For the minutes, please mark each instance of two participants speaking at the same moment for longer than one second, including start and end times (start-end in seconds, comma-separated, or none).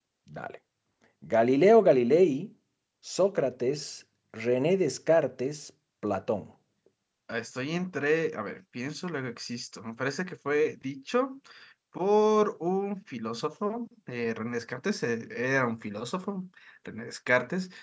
none